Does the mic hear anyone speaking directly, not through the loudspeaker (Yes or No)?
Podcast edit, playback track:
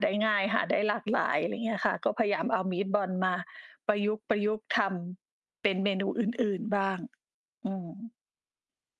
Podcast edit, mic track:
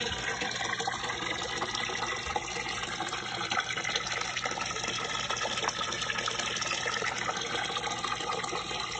No